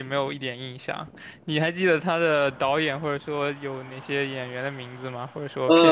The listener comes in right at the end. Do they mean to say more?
Yes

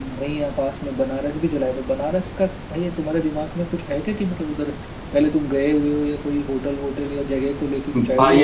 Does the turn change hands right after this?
Yes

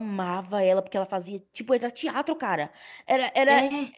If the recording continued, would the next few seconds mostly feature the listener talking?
No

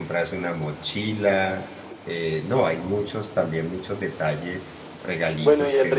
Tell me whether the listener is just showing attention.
No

